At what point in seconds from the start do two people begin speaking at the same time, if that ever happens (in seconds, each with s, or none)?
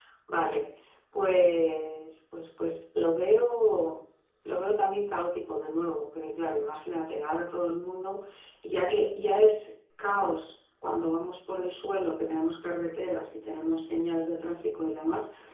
none